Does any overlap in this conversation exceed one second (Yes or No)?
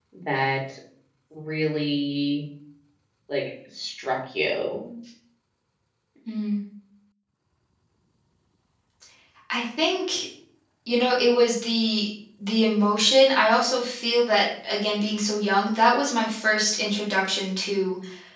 No